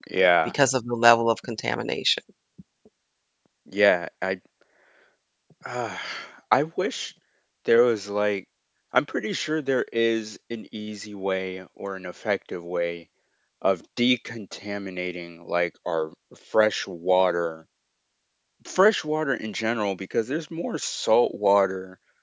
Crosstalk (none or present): none